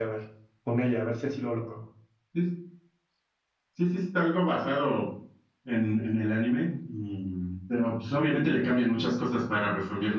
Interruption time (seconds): none

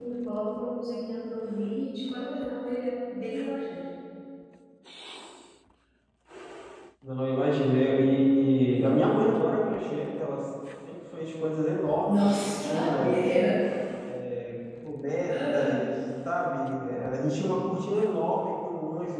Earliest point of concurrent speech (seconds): 12.1 s

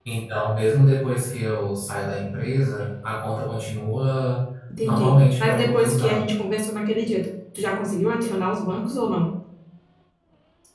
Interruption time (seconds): 4.8 s

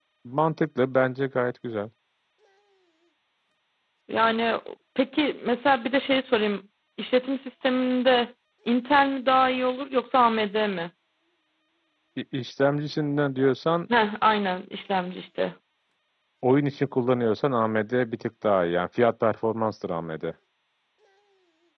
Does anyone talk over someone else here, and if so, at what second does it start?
none

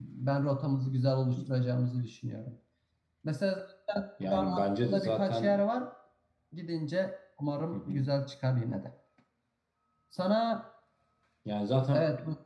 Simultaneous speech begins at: 4.3 s

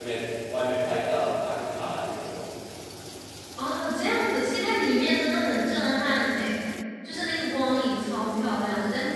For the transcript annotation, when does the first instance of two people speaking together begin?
none

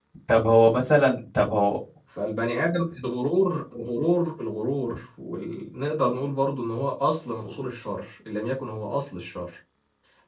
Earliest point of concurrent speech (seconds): none

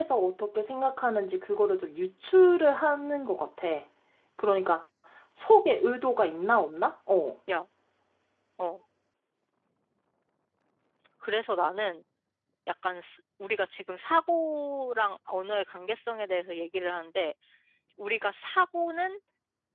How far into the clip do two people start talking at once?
none

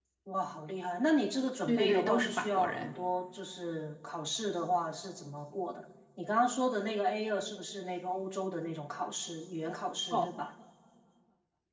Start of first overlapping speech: 1.7 s

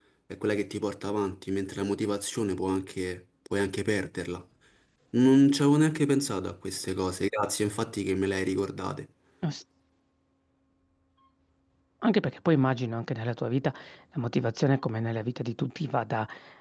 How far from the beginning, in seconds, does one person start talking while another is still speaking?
none

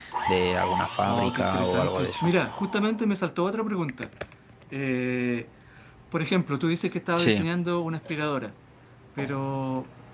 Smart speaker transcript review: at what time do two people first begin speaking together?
1.1 s

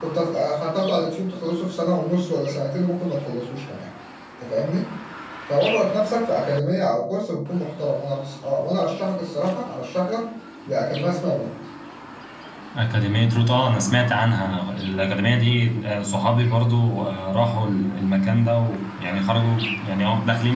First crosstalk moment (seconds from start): none

